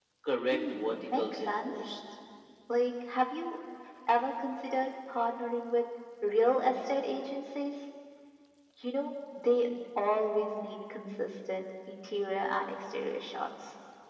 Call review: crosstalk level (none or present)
present